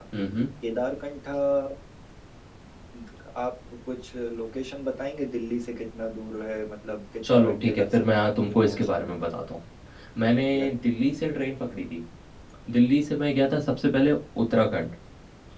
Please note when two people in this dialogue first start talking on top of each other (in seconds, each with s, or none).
7.2 s